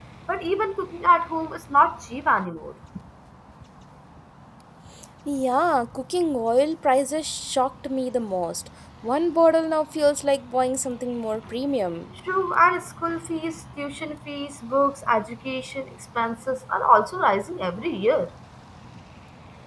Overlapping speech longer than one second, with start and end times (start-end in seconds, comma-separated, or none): none